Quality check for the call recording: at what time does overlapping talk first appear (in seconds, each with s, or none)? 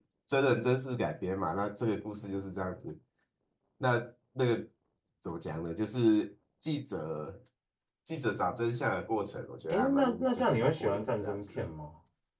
9.7 s